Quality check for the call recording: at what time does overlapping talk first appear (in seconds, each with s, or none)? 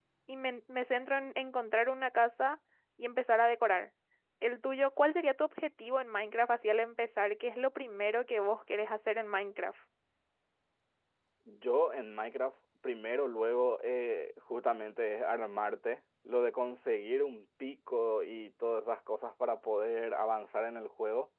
none